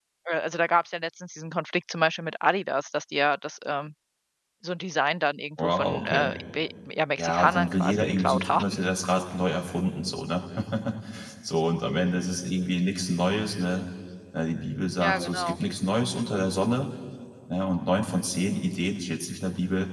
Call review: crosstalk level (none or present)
present